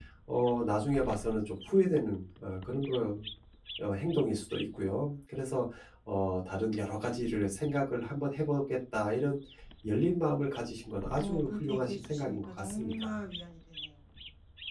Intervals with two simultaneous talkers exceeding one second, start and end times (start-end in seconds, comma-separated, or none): 11.2-13.2